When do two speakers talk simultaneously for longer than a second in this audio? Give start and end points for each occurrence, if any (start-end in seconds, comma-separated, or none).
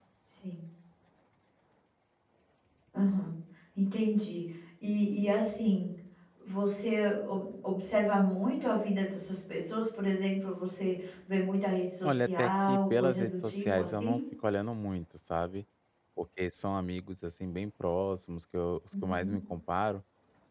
12.0-14.2